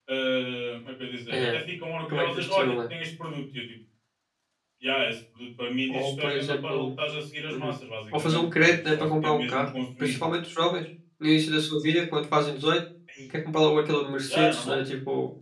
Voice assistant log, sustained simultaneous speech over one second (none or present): present